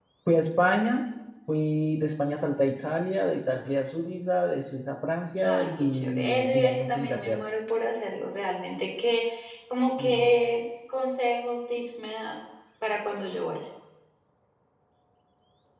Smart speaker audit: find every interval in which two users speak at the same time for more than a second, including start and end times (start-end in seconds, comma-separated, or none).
5.4-7.5